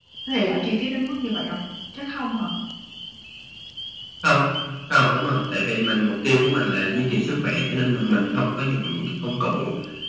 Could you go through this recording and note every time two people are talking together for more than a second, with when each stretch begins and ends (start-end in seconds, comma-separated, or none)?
none